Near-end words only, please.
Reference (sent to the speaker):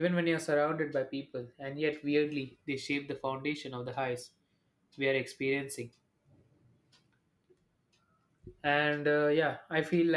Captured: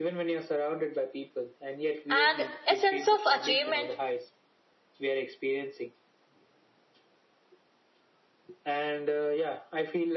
and a sense of achievement

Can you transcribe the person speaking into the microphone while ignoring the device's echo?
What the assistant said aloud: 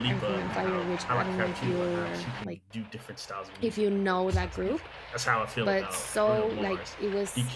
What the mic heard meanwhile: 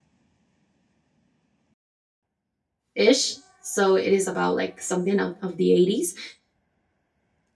ish. So it is about like something out of the 80s.

